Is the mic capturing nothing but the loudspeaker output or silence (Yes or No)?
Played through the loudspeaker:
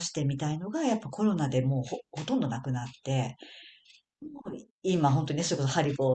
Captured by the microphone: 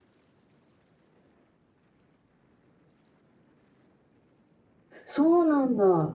No